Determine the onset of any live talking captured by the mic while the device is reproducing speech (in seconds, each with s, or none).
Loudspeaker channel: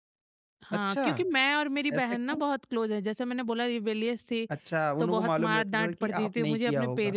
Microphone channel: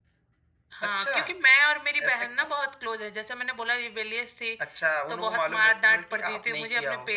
none